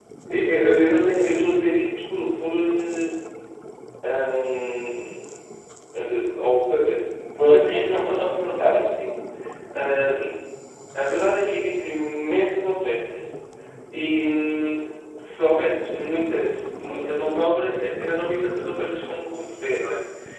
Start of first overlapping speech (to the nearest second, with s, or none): 7 s